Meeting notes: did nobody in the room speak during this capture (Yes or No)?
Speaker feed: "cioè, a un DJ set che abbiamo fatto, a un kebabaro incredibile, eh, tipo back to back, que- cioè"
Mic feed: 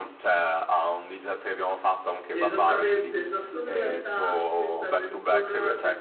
No